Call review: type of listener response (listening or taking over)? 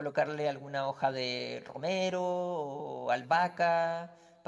listening